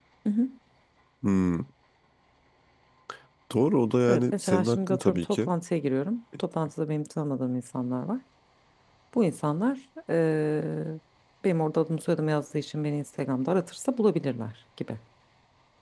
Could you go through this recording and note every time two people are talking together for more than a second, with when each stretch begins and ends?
4.1-5.5

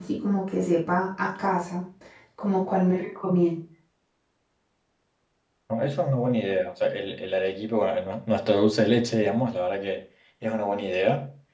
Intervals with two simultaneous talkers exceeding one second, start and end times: none

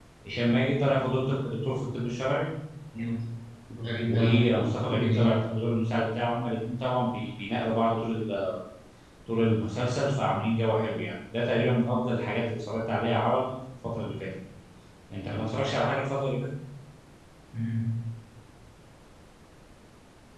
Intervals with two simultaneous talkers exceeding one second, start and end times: 4.1-5.5

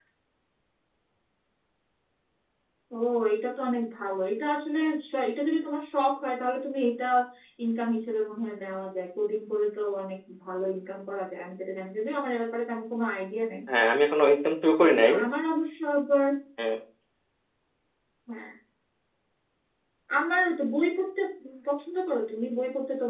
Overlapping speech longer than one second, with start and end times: none

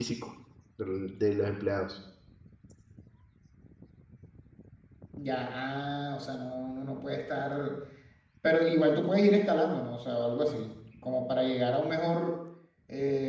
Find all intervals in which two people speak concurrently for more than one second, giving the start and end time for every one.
none

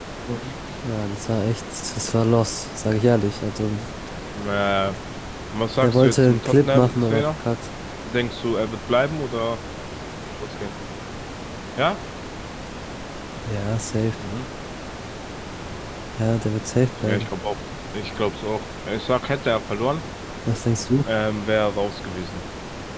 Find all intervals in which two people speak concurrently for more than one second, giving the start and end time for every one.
5.8-7.3

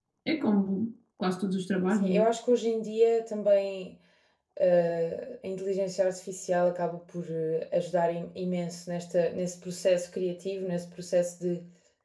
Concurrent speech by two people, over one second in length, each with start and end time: none

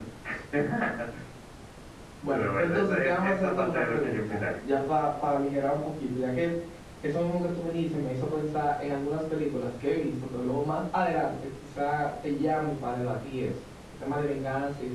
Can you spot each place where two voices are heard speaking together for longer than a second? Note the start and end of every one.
2.3-4.5

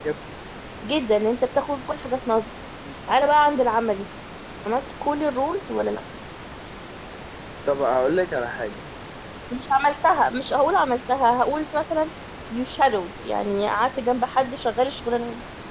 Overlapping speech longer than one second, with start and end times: none

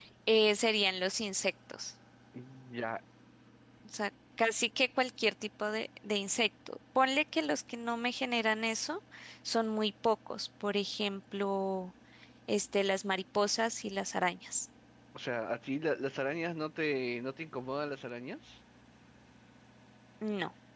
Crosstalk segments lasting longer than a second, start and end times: none

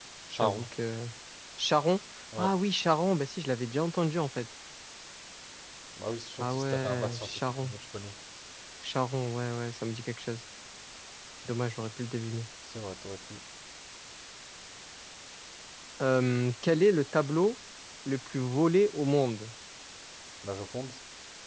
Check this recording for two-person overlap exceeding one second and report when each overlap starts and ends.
6.4-7.7

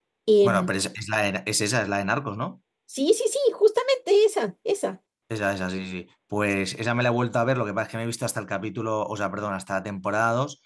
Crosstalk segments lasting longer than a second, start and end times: none

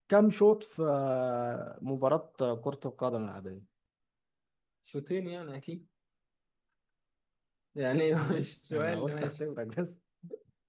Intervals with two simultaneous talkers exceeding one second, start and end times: 8.1-9.4

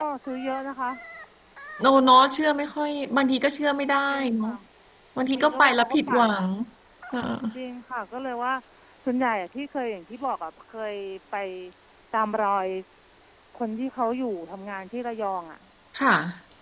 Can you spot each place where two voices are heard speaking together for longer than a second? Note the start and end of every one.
5.2-6.4

